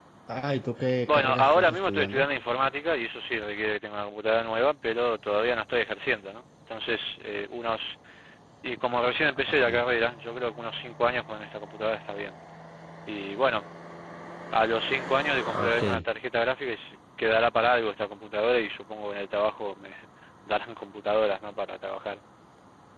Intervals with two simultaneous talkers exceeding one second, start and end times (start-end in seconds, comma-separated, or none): 1.1-2.3